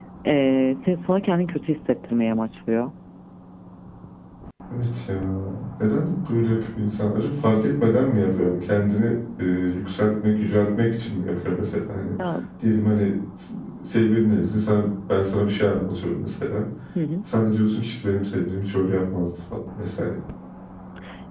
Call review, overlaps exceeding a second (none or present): none